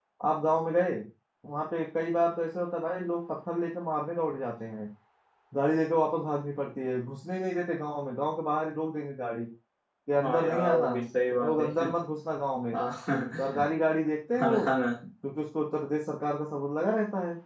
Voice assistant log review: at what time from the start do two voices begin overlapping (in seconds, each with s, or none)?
10.2 s